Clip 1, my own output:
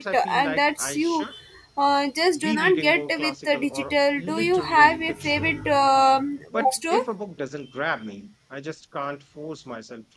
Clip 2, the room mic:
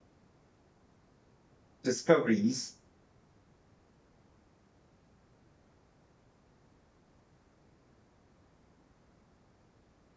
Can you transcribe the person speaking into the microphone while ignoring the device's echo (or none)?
discoveries,